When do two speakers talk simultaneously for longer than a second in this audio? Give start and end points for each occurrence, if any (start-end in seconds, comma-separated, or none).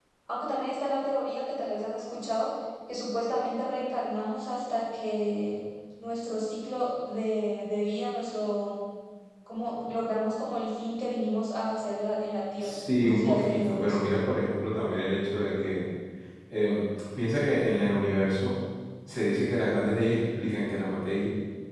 12.6-14.0